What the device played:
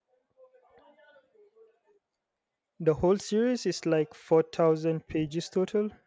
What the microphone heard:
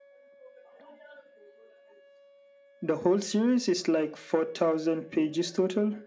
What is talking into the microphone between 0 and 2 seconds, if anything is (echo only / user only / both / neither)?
neither